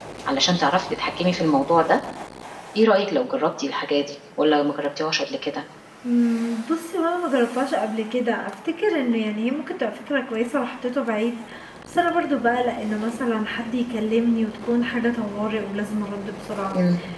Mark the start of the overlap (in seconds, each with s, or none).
none